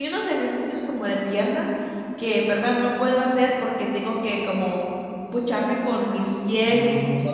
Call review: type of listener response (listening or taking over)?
taking over